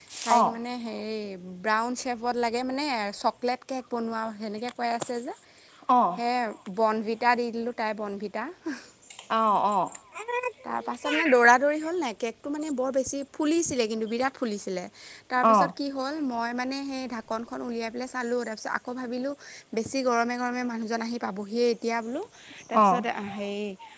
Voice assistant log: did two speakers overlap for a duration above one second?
No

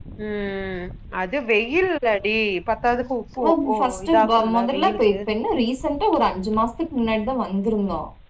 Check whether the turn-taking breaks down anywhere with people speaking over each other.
Yes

